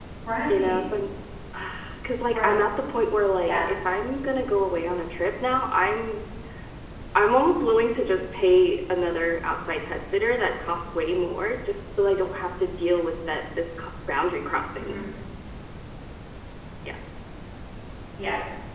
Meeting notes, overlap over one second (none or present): none